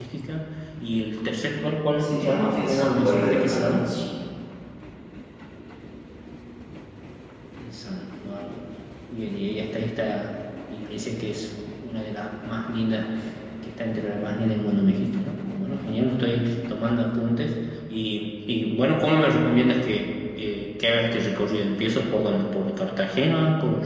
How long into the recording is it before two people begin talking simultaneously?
2.0 s

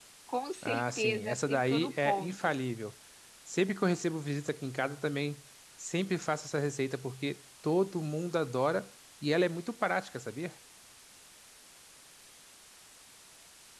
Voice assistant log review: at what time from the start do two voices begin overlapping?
0.6 s

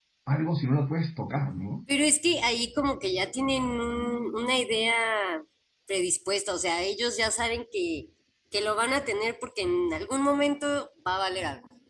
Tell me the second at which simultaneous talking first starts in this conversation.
none

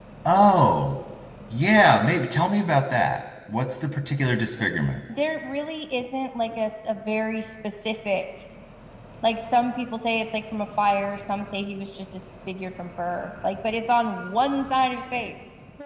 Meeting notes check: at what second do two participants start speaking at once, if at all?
none

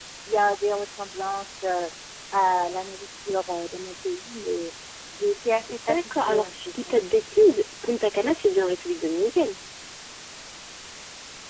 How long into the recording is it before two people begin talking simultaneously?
5.9 s

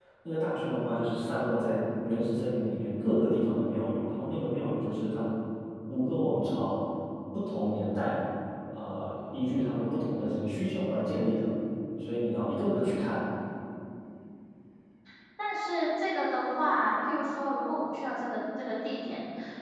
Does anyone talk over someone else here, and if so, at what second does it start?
none

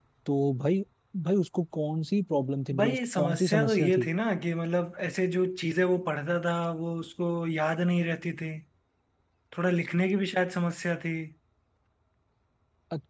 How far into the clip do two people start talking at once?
2.7 s

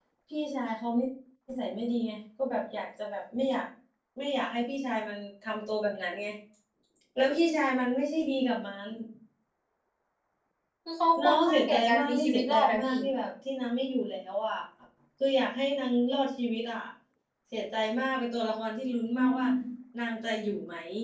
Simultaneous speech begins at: 11.2 s

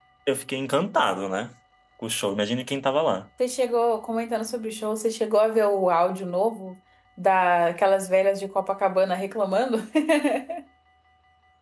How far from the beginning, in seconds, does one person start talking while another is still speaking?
none

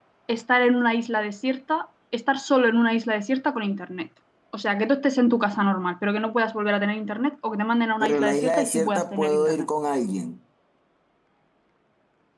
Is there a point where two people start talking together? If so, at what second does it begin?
8.0 s

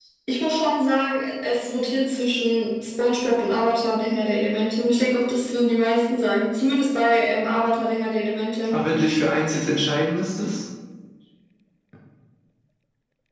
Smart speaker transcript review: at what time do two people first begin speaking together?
none

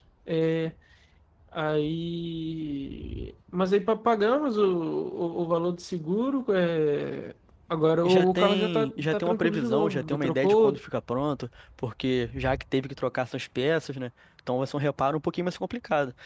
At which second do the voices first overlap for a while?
8.0 s

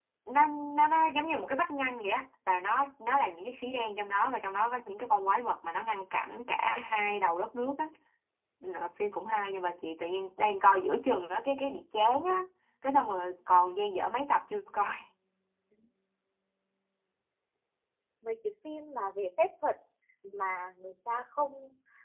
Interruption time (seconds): none

